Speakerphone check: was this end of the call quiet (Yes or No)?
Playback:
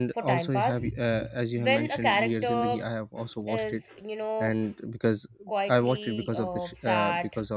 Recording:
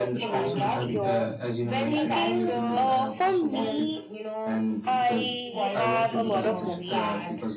No